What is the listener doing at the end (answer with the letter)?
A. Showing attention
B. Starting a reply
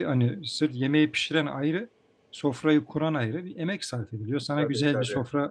A